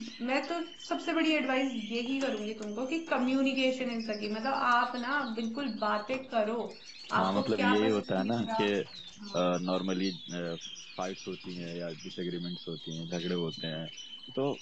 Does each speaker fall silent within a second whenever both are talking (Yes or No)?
No